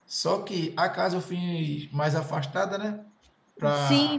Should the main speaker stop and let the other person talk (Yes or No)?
Yes